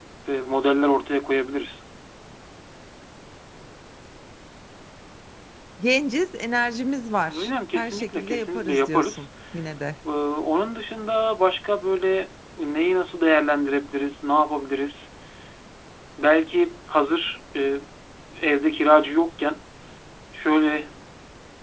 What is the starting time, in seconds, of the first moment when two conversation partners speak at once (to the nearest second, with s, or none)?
7 s